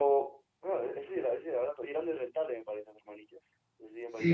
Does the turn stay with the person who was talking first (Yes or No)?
No